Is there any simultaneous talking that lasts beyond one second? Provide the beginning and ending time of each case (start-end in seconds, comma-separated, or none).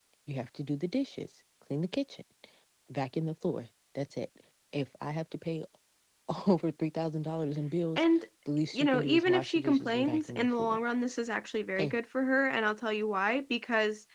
8.7-10.8